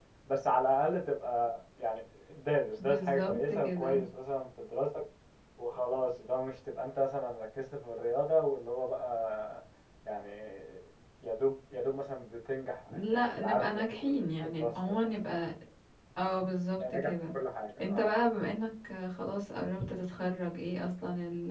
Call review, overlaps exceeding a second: present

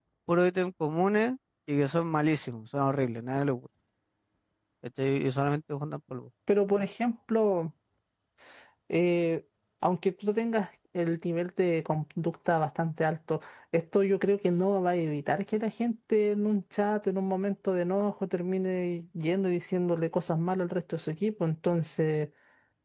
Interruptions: none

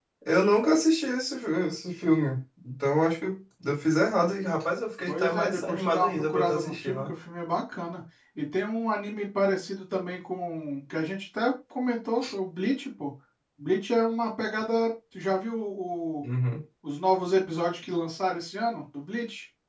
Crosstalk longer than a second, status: present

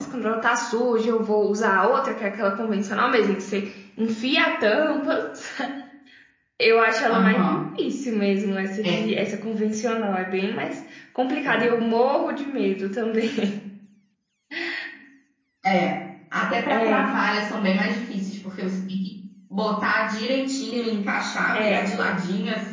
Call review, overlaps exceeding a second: none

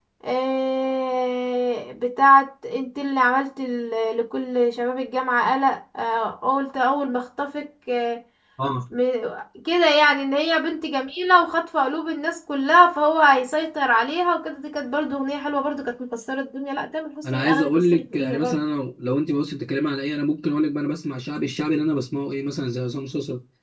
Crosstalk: present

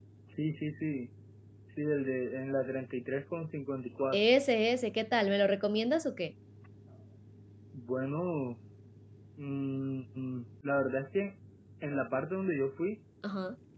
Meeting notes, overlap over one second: none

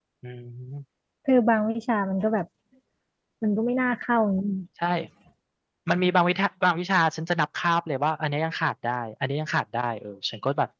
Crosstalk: none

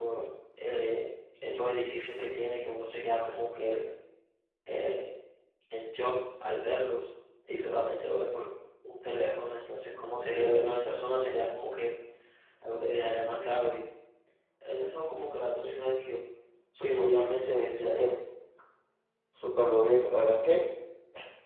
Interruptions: present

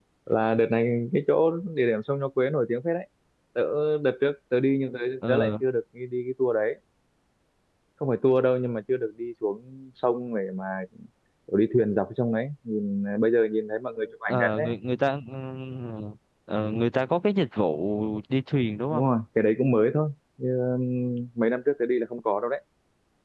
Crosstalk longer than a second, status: none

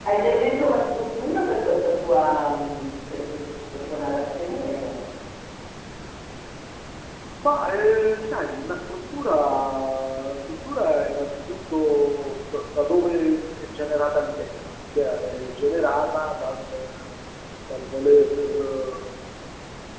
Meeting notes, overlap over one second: none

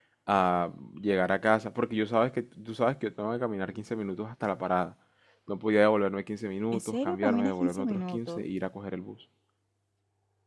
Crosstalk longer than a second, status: present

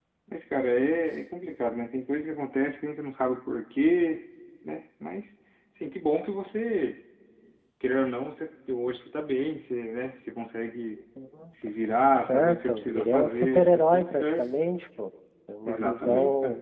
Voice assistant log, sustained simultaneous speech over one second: present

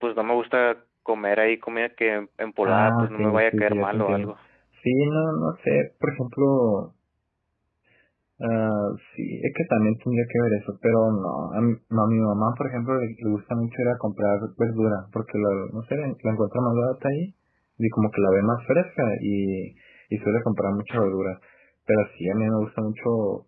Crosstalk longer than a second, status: present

